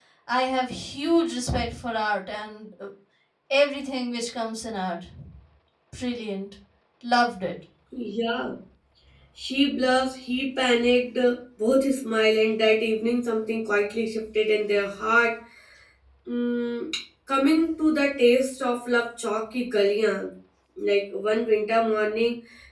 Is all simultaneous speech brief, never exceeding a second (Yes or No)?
Yes